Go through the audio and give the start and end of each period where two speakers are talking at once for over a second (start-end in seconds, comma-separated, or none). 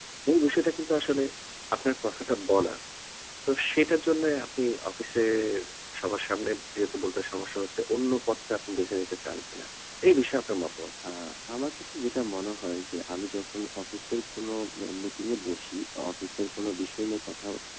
none